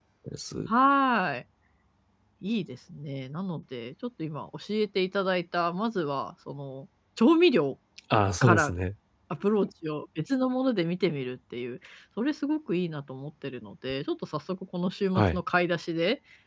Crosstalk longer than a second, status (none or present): none